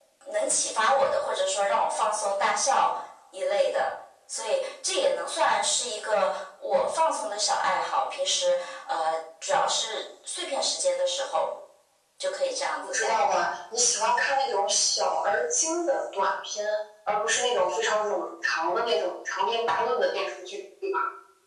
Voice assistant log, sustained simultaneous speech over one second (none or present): none